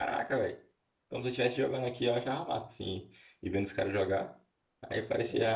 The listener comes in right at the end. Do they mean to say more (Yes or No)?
No